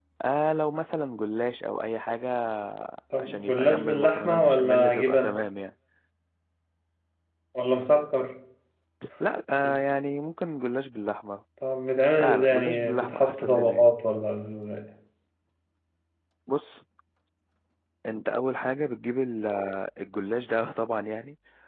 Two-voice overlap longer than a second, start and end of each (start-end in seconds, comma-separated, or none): 3.2-5.3, 12.2-13.9